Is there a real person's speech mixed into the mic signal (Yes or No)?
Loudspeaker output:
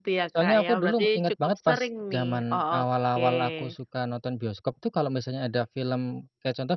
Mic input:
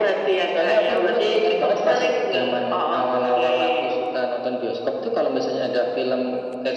No